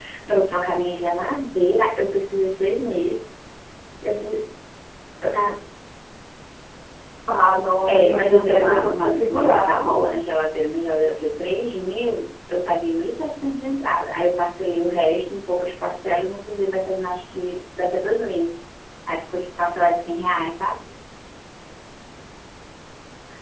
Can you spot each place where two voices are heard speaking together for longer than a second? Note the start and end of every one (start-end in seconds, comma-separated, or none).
7.9-9.8